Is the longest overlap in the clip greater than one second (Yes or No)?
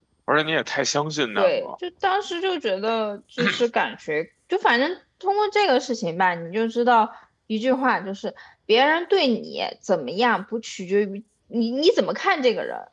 No